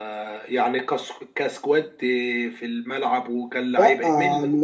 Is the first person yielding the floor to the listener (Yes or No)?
Yes